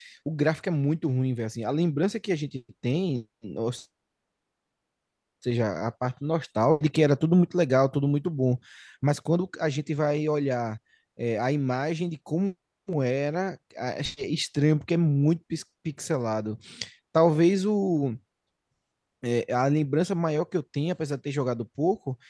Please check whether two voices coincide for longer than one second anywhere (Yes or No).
No